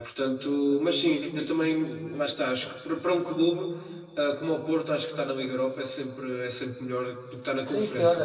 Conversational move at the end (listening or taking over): taking over